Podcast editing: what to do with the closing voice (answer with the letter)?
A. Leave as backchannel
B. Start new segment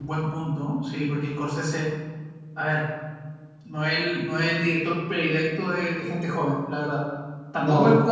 A